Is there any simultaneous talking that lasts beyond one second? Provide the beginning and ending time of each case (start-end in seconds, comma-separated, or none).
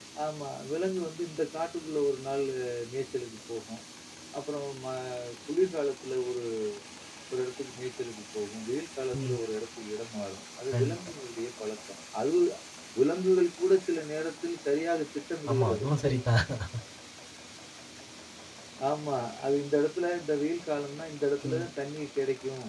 none